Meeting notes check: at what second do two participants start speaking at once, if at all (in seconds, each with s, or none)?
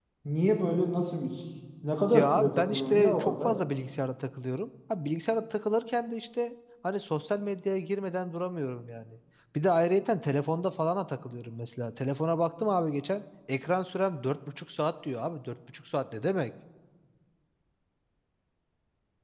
2.1 s